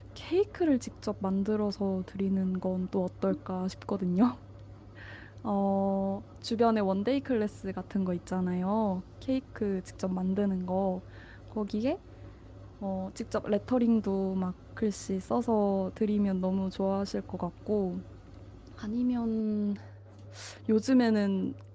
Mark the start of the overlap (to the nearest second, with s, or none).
none